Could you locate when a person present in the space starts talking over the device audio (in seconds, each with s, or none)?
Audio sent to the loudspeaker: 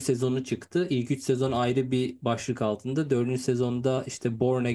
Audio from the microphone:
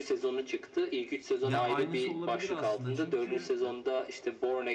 1.4 s